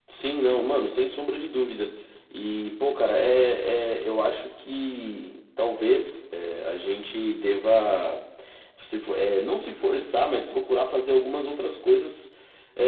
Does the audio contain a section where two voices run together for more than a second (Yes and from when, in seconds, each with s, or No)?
No